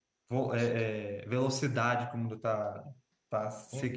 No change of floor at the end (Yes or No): No